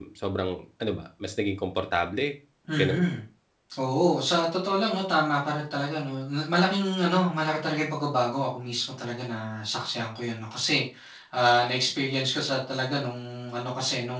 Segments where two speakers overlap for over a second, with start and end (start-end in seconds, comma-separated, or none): none